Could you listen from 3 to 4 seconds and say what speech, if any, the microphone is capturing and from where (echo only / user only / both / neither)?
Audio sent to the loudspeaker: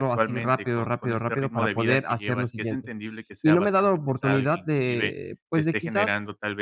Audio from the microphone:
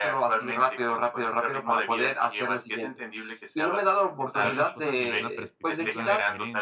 echo only